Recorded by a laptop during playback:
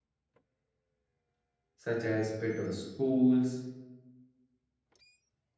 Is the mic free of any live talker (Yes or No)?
No